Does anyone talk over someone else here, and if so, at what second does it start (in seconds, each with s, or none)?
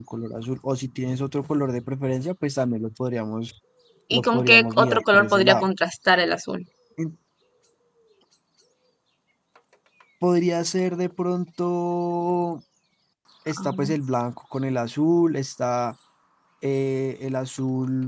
4.1 s